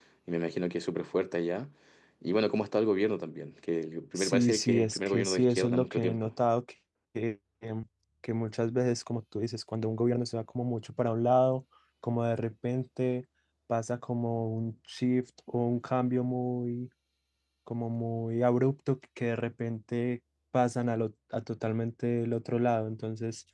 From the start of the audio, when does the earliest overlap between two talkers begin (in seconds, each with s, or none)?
4.2 s